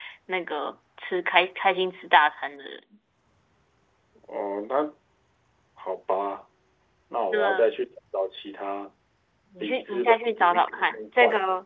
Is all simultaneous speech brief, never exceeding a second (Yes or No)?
No